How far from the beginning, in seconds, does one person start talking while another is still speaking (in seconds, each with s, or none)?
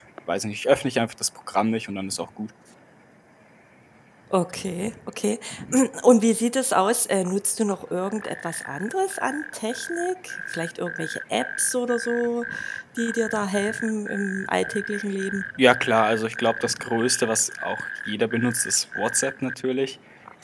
none